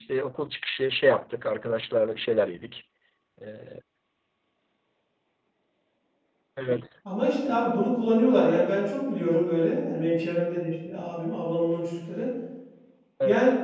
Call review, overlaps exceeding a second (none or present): none